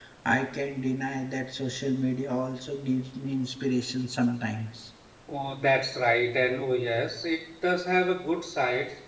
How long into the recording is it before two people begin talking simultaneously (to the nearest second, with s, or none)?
none